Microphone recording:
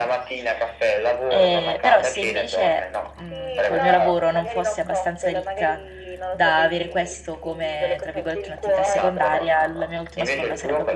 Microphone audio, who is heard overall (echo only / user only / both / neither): both